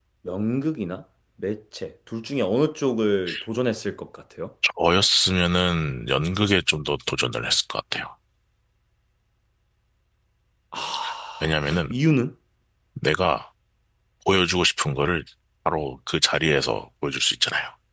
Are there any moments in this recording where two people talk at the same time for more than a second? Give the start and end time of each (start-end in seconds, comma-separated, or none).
none